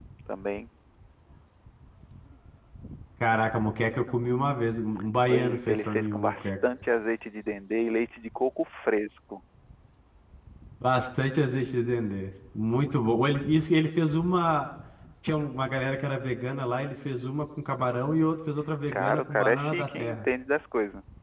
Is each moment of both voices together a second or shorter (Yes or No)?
No